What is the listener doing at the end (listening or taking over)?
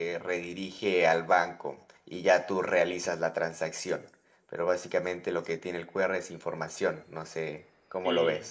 taking over